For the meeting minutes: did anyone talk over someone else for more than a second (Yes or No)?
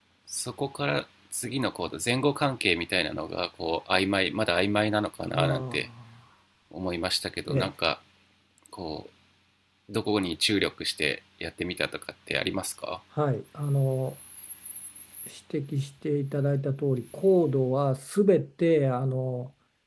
No